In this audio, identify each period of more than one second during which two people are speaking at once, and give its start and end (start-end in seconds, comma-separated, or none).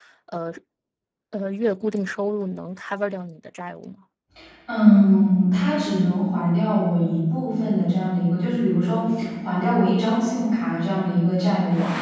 none